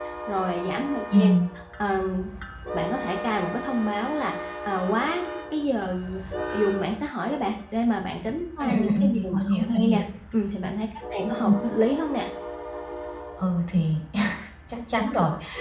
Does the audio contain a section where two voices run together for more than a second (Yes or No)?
Yes